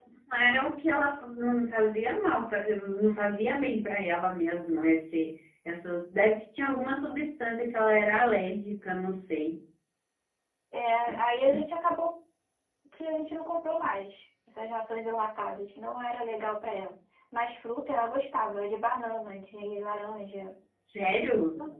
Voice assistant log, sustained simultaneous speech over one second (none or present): none